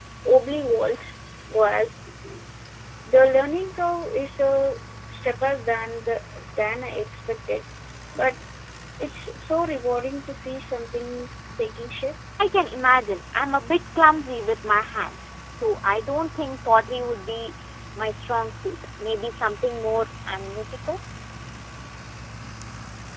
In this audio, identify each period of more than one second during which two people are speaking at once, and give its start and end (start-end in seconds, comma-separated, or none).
none